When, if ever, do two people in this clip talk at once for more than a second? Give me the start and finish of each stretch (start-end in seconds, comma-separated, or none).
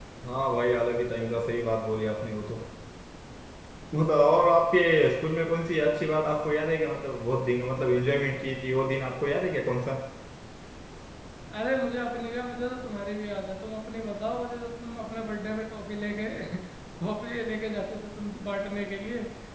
none